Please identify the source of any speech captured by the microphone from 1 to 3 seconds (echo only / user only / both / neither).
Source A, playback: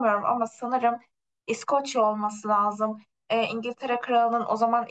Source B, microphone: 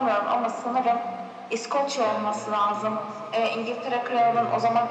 both